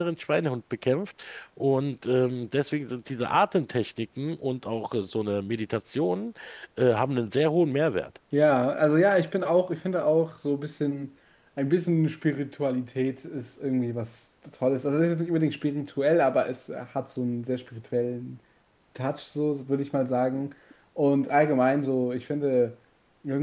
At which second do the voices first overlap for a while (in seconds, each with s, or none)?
none